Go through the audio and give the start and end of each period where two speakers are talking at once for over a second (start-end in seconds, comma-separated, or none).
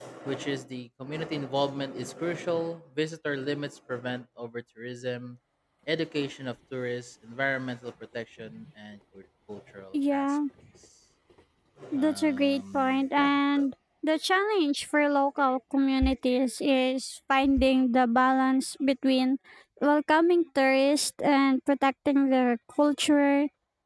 12.0-13.3